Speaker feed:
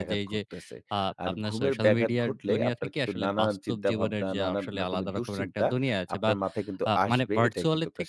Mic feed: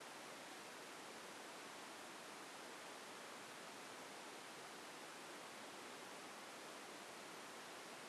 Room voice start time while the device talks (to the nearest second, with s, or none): none